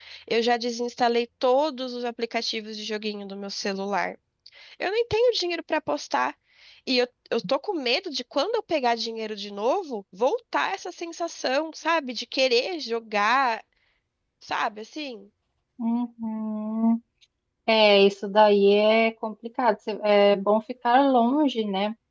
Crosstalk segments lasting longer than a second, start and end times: none

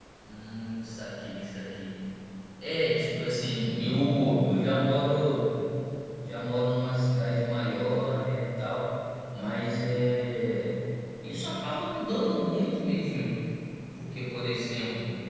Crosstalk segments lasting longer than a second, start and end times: none

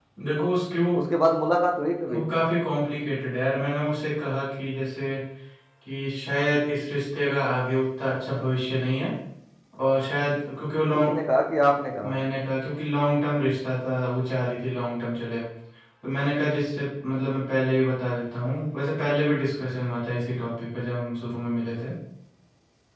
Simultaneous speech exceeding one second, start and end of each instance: none

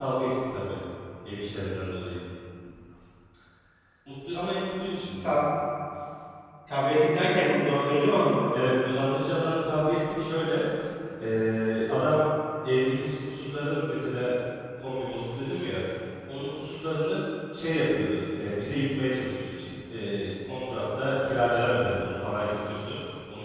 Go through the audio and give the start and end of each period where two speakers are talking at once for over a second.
none

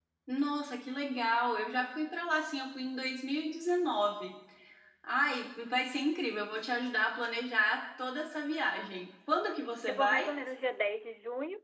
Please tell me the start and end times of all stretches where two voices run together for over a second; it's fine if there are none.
none

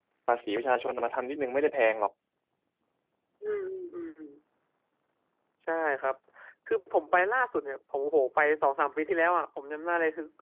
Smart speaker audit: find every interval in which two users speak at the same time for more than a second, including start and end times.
none

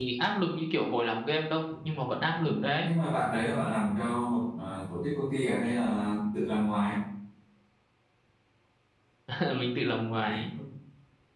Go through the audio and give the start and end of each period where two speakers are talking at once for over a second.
none

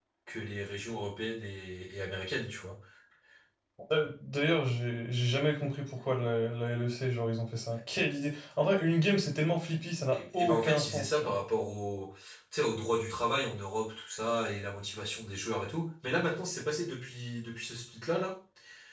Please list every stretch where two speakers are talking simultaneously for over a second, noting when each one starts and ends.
10.1-11.3

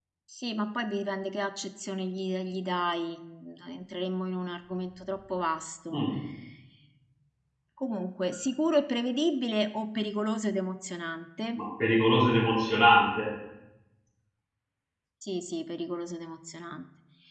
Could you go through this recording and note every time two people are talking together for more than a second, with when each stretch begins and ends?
none

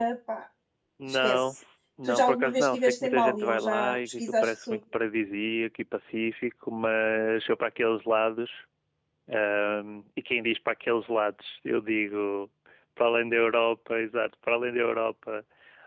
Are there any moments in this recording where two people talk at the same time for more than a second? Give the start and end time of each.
2.0-4.8

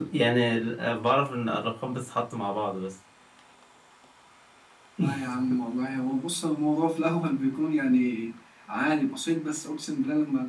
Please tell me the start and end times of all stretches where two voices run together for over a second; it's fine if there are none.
none

